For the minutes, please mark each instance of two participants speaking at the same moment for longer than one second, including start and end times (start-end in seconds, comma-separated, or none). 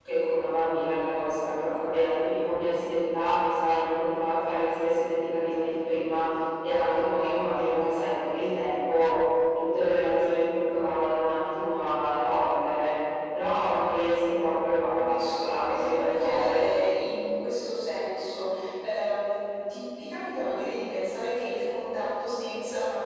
15.1-16.6